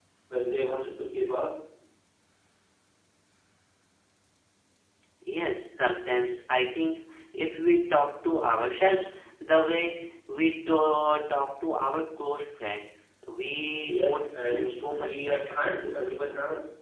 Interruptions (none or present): present